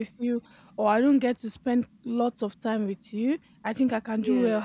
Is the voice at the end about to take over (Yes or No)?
No